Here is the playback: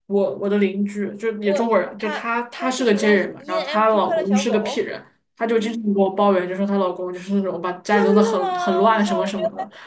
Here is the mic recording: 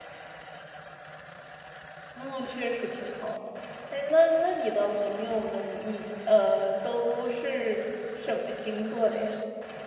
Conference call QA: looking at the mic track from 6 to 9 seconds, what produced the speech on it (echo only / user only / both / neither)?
user only